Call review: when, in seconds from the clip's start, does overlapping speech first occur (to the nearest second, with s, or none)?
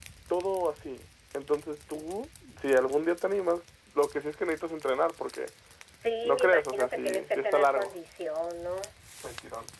6 s